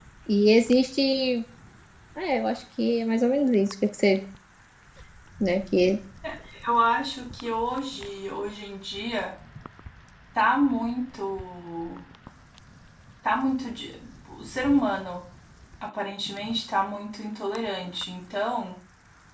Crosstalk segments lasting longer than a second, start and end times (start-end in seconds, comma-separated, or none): none